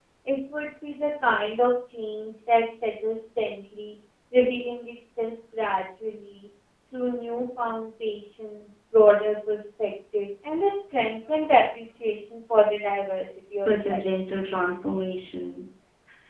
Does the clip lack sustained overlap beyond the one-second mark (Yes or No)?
Yes